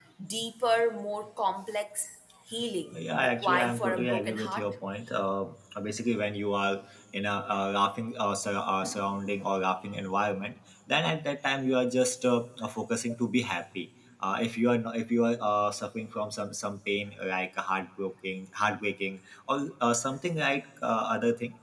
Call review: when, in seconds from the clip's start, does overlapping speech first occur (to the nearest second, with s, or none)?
3 s